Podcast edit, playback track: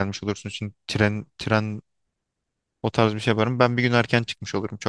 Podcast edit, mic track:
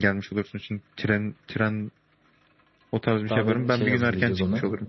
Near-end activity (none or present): present